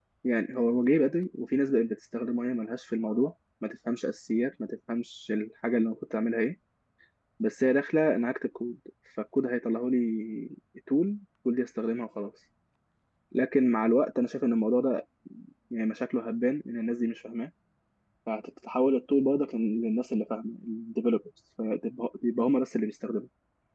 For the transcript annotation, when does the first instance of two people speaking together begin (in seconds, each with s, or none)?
none